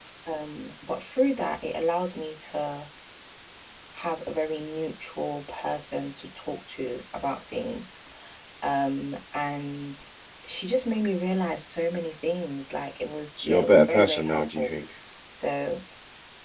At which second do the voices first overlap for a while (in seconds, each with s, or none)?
13.4 s